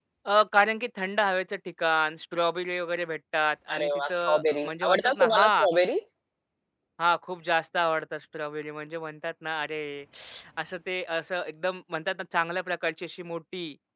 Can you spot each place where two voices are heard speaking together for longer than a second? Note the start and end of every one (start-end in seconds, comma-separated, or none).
3.8-5.6